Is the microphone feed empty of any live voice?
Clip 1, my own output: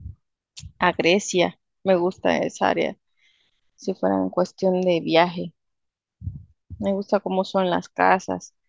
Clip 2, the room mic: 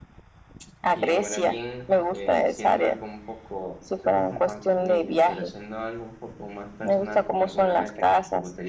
No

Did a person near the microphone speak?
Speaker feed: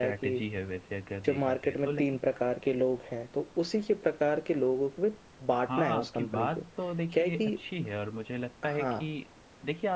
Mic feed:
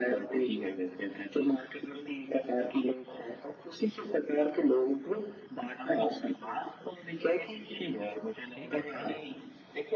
Yes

